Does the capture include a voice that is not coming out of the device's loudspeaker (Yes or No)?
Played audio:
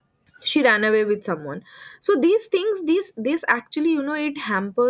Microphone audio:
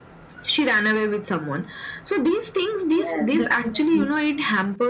Yes